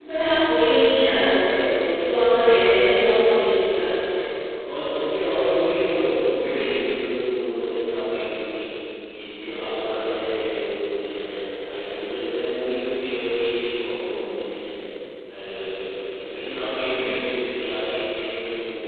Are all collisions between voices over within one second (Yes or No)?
No